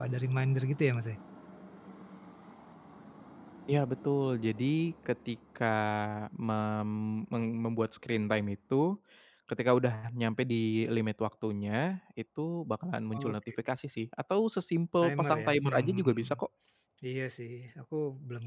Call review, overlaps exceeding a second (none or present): present